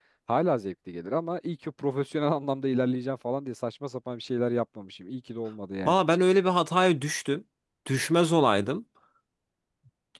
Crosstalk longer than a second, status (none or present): none